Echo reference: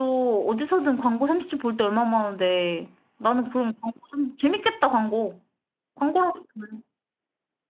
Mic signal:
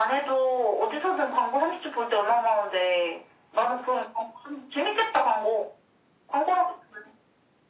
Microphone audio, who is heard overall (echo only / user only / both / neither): echo only